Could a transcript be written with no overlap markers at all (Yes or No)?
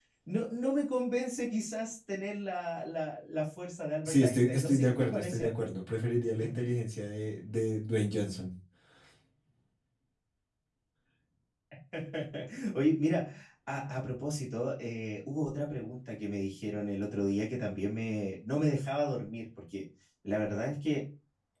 No